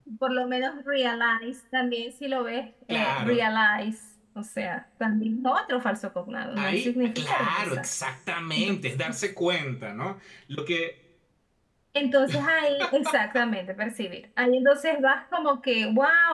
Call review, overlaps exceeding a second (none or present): present